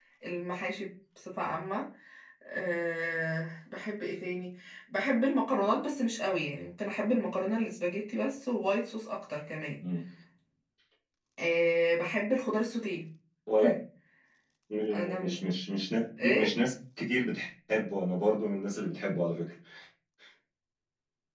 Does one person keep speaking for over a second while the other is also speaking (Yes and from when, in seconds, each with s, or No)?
No